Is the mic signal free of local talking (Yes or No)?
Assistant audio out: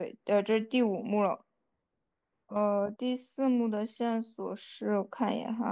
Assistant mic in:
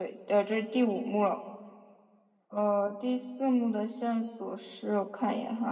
Yes